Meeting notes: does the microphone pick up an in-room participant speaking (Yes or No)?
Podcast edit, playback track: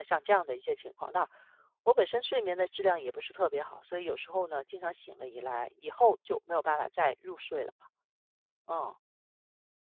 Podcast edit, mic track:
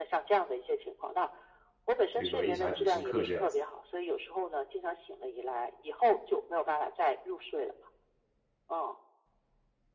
Yes